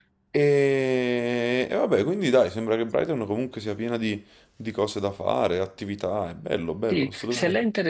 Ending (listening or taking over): taking over